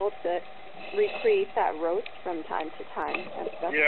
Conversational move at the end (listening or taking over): taking over